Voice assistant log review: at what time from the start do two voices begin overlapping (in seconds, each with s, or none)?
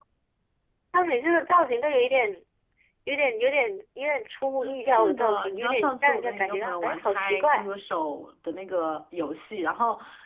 4.6 s